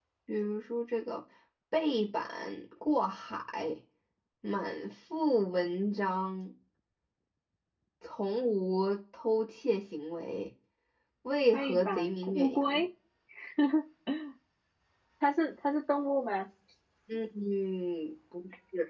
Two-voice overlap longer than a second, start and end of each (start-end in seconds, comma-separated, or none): 11.5-12.8